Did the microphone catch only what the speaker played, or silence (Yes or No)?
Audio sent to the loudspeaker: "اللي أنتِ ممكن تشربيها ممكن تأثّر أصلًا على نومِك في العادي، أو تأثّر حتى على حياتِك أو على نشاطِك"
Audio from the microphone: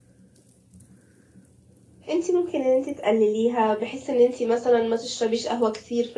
No